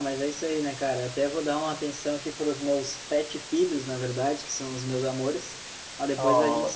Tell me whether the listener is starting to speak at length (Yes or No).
No